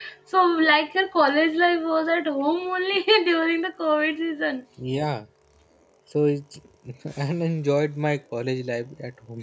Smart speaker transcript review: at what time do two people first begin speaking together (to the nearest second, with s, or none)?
none